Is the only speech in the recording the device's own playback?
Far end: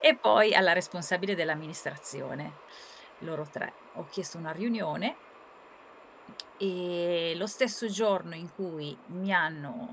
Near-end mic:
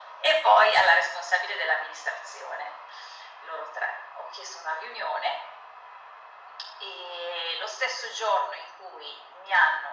Yes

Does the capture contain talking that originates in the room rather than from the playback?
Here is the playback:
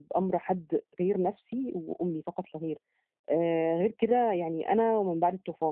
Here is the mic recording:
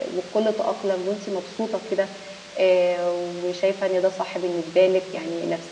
Yes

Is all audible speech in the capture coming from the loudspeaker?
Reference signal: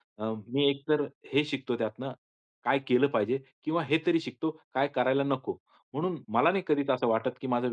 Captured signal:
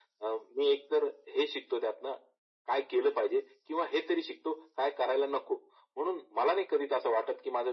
Yes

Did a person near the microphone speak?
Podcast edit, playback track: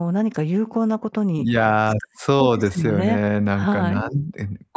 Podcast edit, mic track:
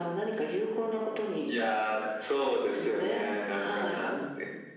No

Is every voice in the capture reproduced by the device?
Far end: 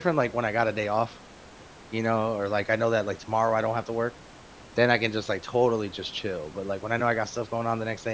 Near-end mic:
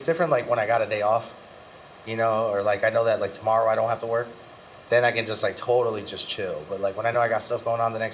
Yes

